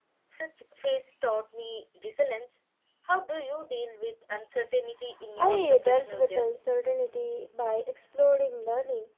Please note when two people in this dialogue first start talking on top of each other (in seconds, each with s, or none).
5.4 s